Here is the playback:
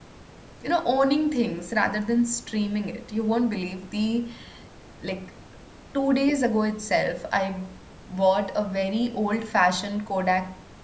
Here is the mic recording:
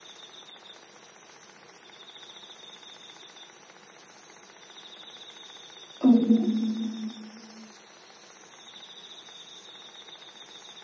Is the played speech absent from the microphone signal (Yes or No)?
Yes